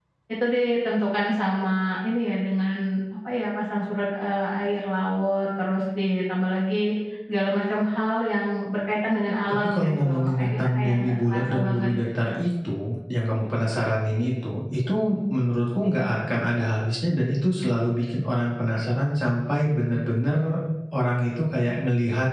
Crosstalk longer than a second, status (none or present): present